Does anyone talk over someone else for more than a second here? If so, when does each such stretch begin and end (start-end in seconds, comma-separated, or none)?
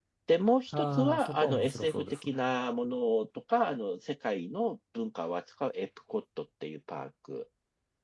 0.7-2.3